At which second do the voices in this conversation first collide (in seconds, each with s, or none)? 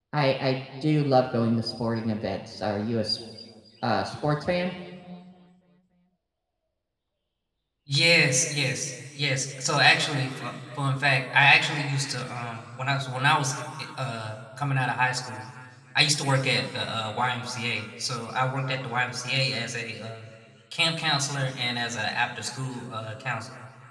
none